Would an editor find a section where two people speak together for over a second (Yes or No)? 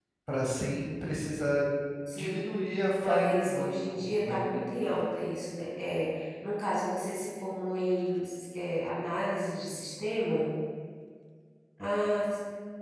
Yes